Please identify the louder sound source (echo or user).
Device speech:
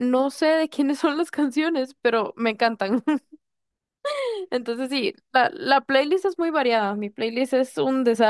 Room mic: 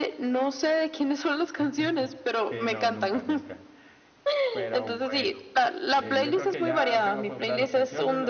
echo